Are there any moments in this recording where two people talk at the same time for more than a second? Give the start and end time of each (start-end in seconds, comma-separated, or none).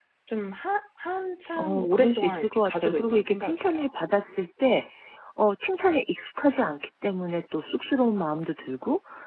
1.6-3.7